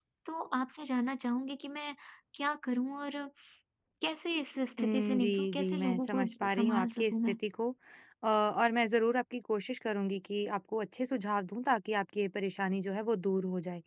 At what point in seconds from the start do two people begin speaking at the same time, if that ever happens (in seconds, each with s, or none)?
4.8 s